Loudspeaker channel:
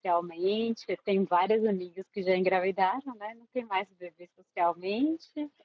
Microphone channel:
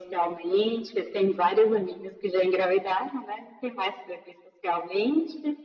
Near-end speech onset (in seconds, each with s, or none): none